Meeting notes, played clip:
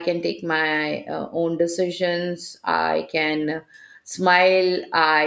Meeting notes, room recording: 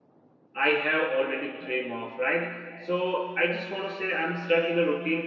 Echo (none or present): none